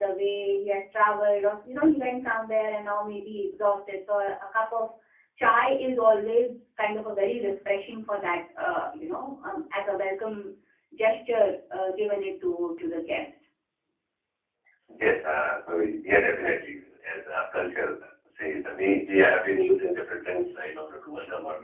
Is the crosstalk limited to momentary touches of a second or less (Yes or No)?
Yes